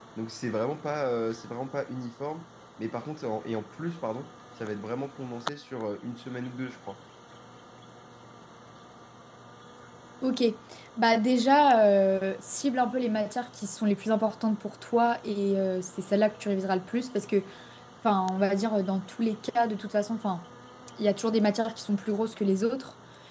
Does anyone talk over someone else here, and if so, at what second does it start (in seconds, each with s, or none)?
none